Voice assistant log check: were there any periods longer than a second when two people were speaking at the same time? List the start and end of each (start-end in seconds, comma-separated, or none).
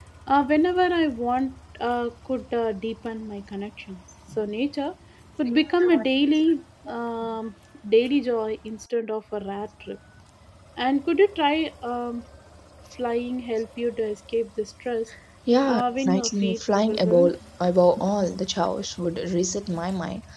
15.7-17.3